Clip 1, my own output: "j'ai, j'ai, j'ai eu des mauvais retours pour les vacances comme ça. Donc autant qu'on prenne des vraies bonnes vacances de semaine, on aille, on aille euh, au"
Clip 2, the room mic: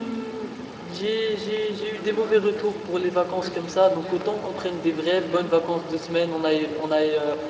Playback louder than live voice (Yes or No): Yes